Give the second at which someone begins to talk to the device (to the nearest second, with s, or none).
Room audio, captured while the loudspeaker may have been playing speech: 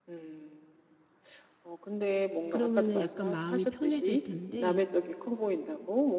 2 s